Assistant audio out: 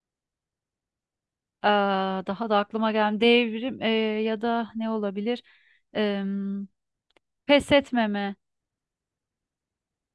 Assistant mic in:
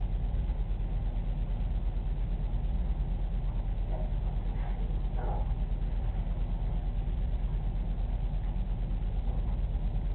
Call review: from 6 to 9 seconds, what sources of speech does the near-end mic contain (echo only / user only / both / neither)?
neither